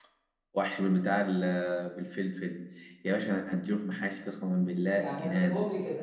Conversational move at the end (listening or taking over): taking over